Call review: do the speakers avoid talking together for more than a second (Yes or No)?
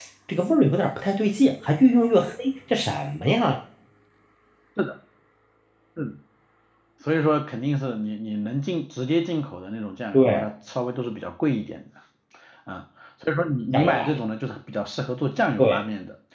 Yes